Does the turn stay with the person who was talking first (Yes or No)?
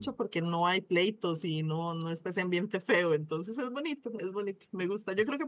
Yes